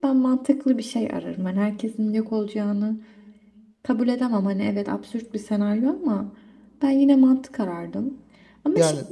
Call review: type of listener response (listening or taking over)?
listening